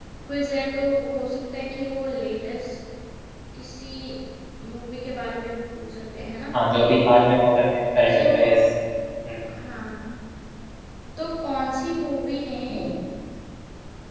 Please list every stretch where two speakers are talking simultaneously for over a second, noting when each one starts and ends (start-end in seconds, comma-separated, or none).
none